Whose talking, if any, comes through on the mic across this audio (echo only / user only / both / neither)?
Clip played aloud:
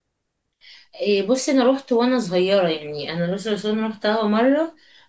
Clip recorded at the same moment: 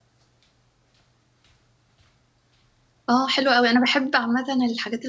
user only